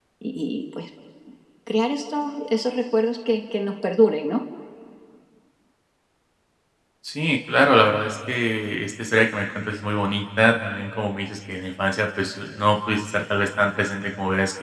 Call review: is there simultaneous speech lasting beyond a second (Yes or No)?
No